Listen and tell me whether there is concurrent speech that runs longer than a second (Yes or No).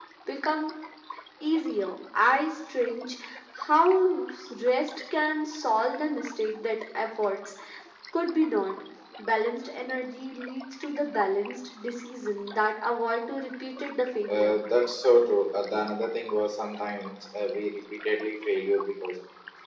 No